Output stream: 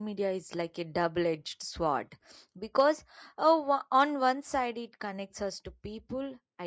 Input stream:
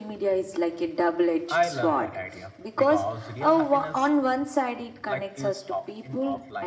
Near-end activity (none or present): present